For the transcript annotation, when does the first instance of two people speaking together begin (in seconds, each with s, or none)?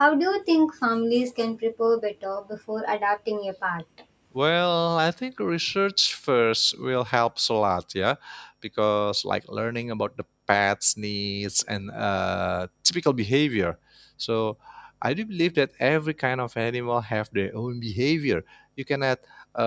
none